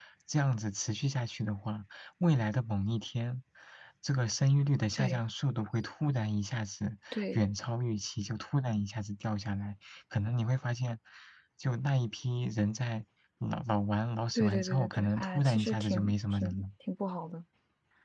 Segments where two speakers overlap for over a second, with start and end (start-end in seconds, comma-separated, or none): 14.3-16.6